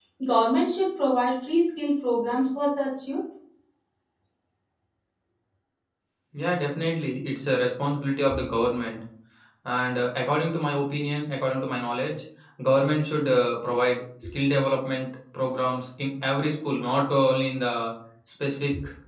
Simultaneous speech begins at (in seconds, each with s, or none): none